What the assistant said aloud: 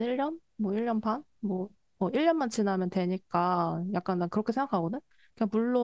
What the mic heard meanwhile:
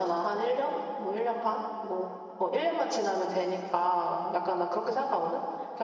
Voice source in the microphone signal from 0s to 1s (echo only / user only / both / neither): echo only